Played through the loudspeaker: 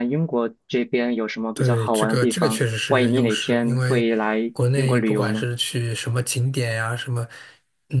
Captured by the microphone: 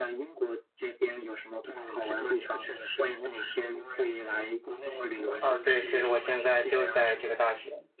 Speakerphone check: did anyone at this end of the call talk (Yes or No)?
Yes